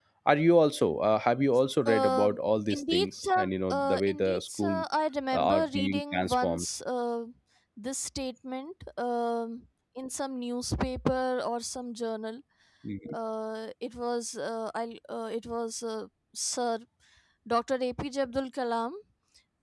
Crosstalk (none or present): present